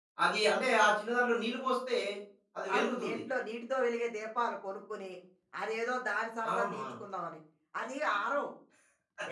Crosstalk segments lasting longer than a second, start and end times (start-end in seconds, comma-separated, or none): none